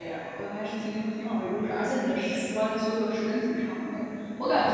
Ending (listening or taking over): listening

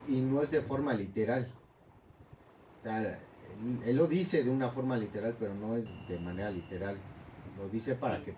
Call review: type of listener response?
listening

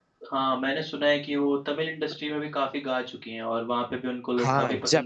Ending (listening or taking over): taking over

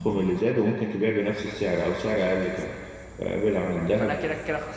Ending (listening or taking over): taking over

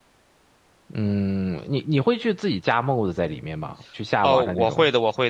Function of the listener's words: taking over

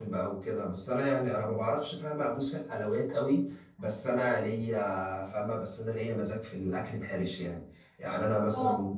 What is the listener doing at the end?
listening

